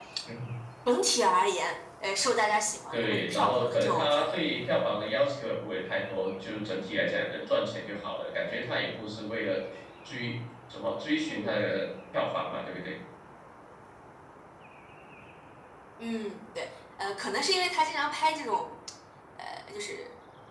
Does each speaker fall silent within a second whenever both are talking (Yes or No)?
No